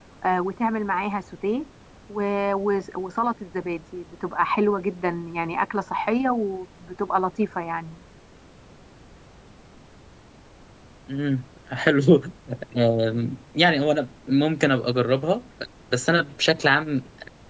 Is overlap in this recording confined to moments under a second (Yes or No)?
Yes